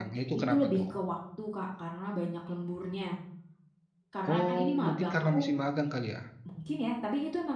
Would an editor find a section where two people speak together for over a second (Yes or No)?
Yes